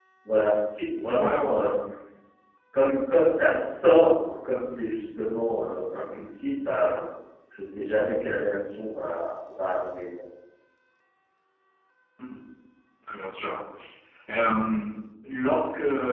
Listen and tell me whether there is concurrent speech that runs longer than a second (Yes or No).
No